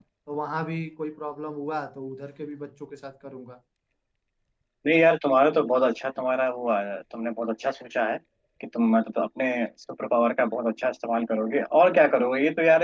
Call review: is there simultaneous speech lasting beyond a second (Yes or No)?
No